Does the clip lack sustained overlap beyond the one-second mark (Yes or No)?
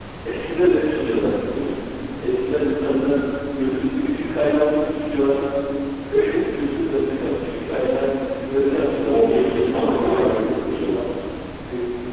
No